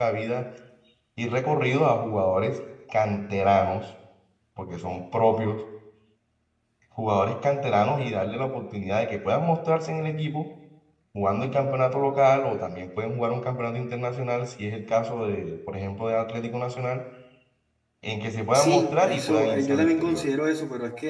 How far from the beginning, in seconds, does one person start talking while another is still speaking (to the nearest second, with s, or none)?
19 s